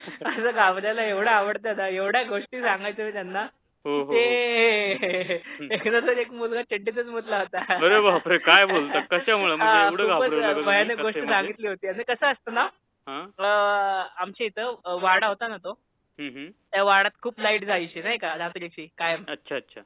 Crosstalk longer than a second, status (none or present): present